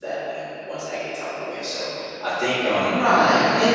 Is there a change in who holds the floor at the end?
Yes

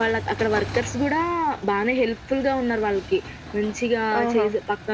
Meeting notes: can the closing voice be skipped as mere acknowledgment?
Yes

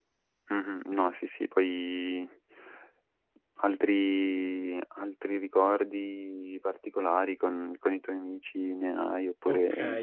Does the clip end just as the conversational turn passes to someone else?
Yes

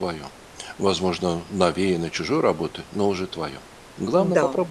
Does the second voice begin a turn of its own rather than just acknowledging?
Yes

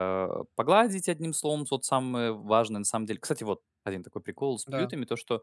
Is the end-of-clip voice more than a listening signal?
No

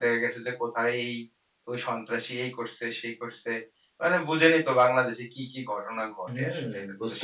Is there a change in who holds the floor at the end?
Yes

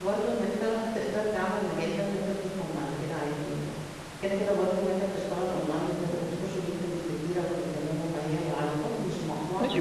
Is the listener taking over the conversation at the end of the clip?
Yes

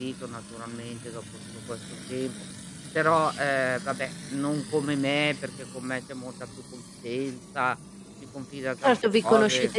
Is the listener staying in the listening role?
No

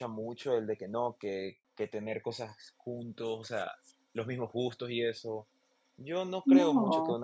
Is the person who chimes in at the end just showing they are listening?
Yes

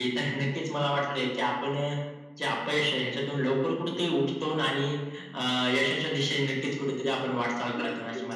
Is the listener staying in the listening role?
No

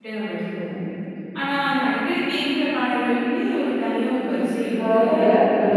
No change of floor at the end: No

